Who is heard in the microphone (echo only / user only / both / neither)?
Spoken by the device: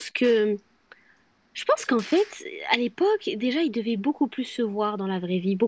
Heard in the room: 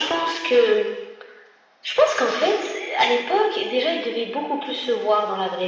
echo only